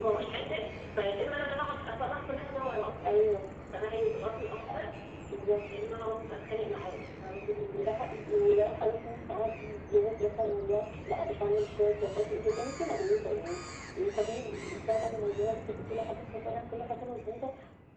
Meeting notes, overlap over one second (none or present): none